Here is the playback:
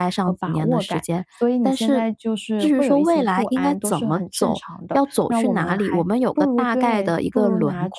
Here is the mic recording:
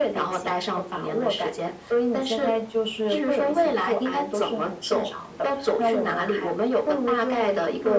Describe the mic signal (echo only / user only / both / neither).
echo only